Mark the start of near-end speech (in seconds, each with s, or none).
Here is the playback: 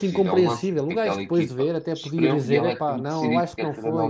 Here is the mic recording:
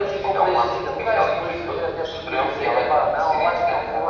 none